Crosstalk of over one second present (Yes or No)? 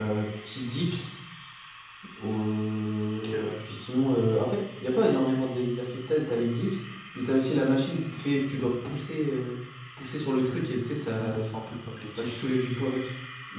No